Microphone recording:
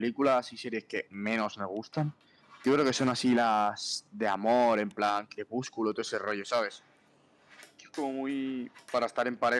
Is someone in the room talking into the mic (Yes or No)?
Yes